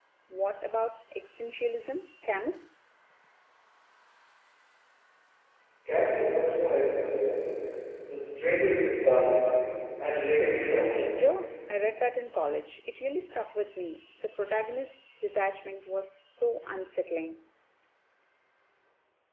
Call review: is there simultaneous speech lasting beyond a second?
No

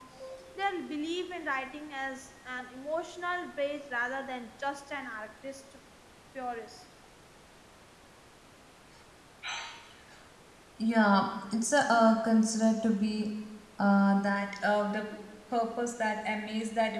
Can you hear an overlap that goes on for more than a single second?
No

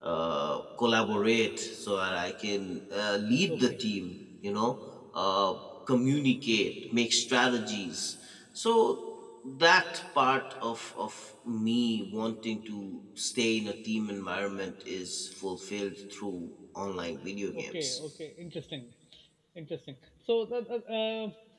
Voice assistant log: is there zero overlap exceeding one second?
Yes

